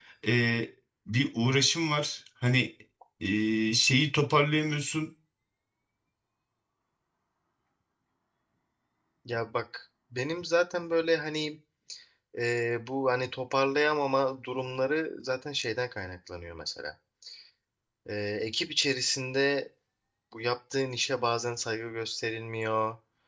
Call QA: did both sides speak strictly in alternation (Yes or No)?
Yes